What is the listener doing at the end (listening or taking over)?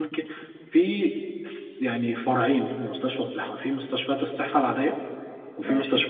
listening